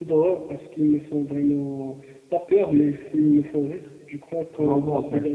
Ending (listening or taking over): taking over